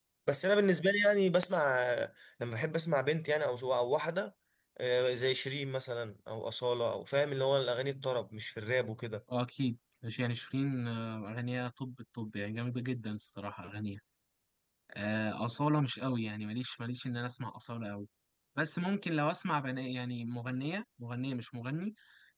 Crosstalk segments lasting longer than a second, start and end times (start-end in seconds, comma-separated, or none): none